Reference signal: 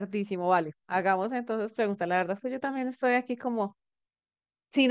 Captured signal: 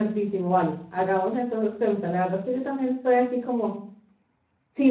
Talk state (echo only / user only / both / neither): echo only